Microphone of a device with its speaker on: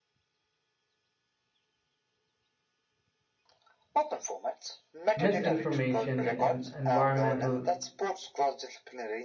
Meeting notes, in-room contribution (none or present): present